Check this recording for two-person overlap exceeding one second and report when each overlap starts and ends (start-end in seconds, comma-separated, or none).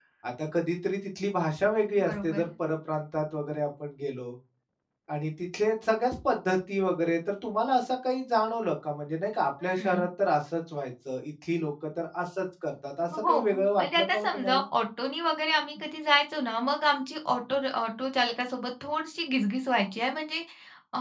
13.3-14.6